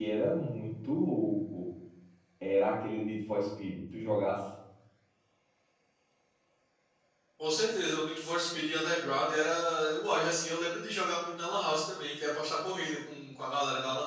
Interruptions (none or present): none